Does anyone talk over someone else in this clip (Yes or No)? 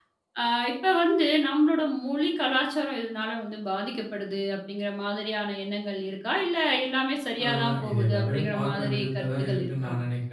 Yes